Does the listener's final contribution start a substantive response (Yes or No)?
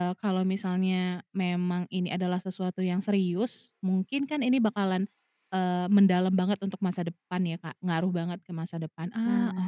Yes